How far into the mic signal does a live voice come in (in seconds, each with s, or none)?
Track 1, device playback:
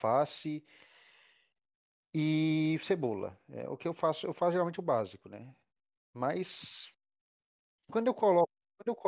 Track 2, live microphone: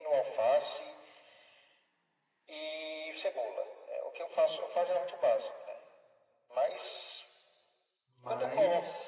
8.1 s